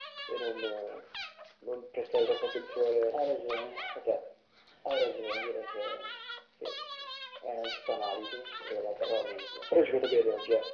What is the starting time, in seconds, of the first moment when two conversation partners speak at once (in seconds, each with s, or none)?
none